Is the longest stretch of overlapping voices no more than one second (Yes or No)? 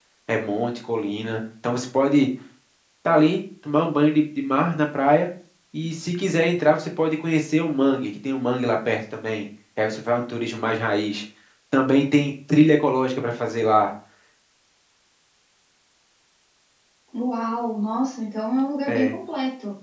Yes